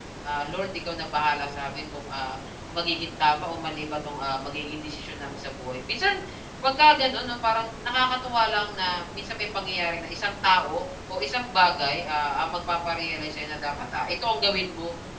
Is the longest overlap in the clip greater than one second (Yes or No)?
No